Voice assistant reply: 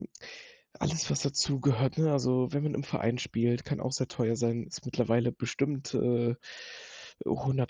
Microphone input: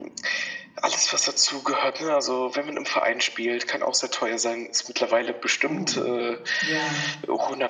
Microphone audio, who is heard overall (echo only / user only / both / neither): both